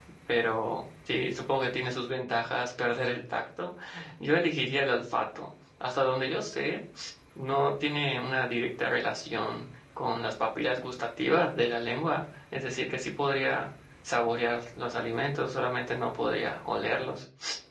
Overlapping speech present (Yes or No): No